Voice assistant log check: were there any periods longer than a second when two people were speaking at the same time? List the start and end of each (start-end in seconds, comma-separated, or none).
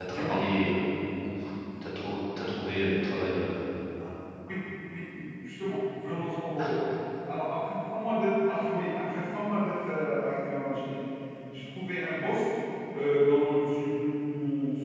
none